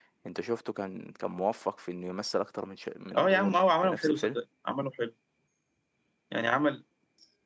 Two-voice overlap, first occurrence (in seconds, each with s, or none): 3.1 s